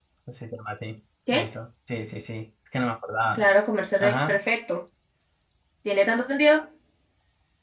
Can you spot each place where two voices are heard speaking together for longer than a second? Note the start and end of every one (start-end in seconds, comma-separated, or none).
none